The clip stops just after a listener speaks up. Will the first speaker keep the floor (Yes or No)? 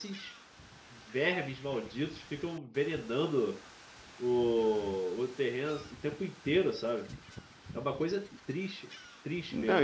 No